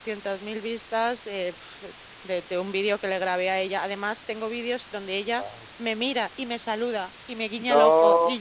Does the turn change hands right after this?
No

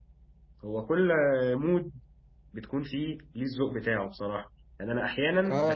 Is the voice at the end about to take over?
No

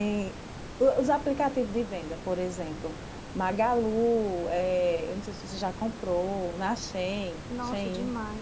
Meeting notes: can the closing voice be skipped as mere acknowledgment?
No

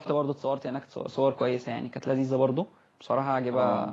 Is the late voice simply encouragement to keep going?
Yes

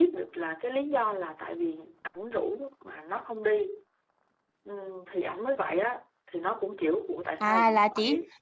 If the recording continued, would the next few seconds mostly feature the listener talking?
Yes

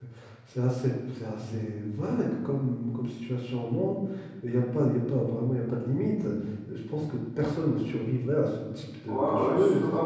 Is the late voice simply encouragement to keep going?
No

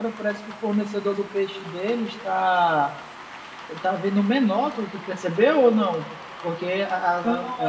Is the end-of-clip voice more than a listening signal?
Yes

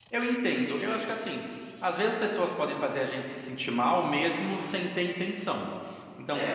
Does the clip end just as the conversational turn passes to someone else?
No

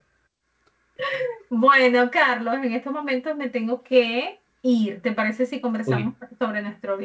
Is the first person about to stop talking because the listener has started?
No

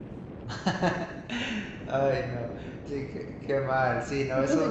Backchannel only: No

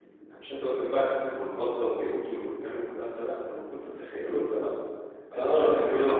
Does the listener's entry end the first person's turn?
Yes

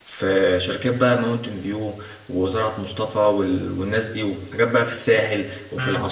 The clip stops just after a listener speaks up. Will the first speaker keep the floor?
No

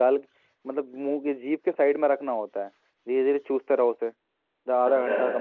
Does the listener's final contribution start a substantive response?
No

